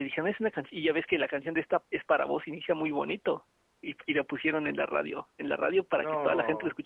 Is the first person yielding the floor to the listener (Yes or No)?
No